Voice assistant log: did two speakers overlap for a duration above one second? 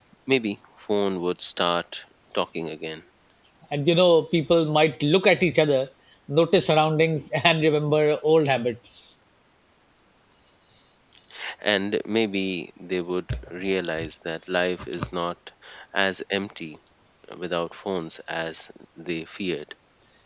No

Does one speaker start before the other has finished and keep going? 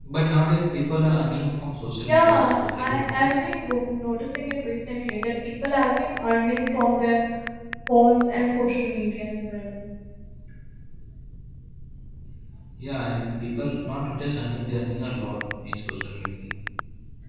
Yes, from 2.0 s

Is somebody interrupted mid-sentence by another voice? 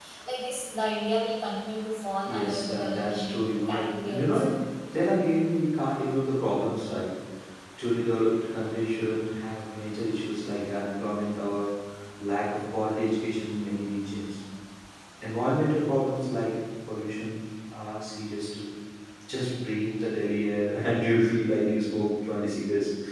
Yes, from 2.3 s

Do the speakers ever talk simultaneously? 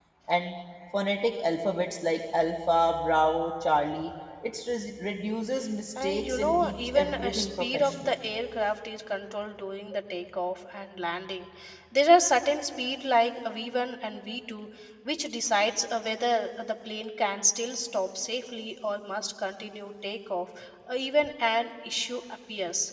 Yes, from 6.0 s

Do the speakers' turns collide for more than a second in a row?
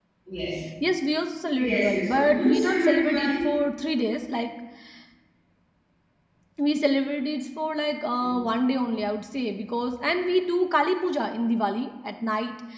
Yes, from 1.7 s

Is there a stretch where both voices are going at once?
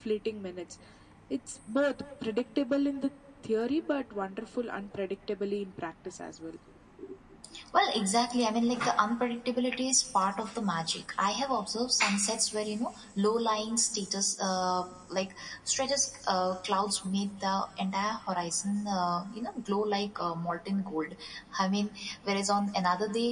No

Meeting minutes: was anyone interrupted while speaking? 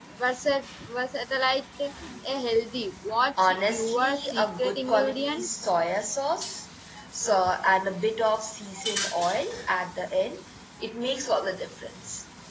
Yes, from 3.4 s

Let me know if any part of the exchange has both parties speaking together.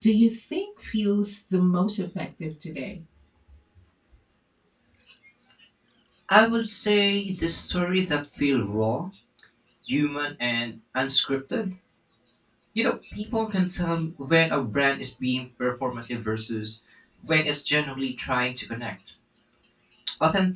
No

